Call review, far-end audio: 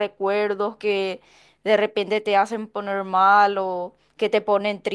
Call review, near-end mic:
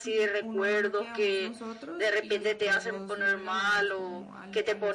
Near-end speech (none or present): present